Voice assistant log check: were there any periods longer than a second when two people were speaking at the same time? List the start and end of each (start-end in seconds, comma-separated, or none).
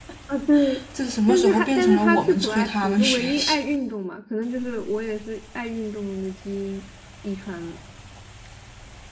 1.3-3.6